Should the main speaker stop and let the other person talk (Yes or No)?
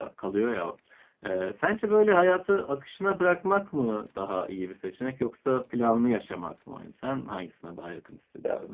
Yes